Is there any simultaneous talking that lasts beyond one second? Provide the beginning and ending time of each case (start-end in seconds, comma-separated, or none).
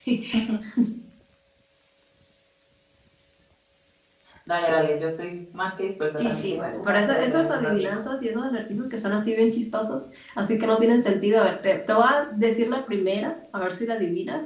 6.2-7.9